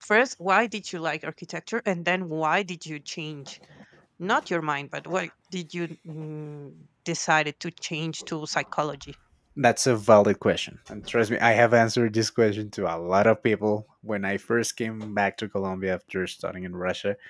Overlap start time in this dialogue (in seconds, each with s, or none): none